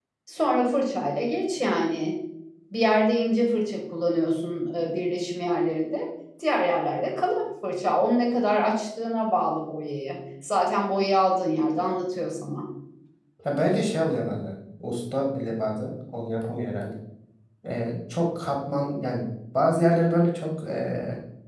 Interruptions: none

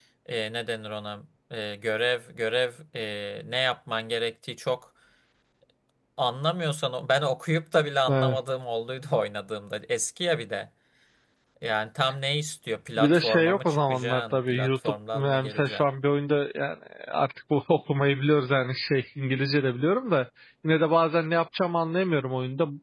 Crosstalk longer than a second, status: present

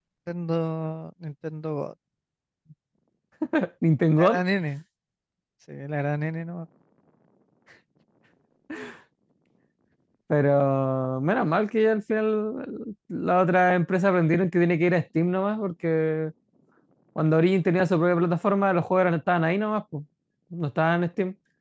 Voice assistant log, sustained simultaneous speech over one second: none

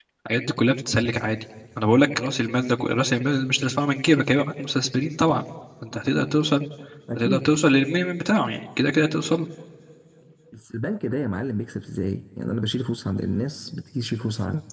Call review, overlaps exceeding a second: none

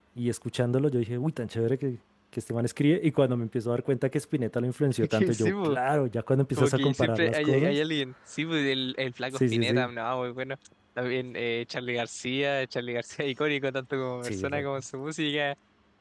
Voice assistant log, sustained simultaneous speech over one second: present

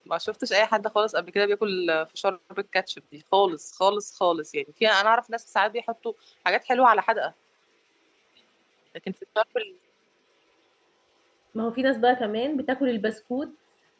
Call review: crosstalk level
none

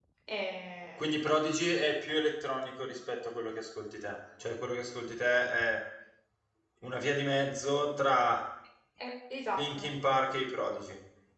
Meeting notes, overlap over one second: none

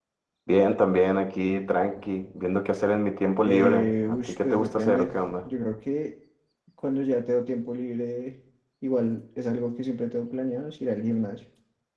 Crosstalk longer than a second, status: present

